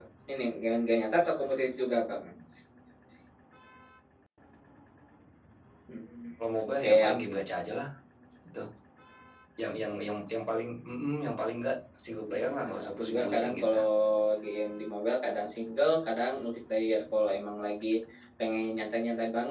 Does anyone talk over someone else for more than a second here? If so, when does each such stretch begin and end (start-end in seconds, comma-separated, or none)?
12.3-13.8